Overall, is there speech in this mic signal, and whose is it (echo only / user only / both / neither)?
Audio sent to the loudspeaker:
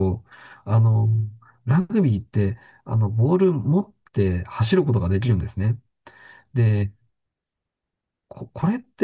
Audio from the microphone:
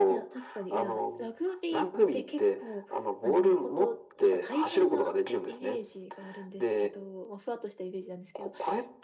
both